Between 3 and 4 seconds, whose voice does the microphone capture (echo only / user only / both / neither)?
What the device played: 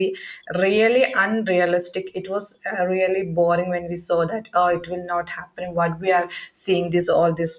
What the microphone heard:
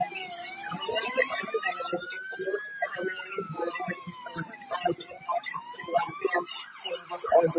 echo only